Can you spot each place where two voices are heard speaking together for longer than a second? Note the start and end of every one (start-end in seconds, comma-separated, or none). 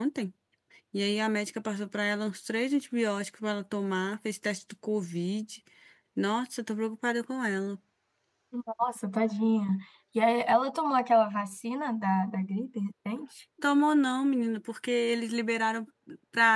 none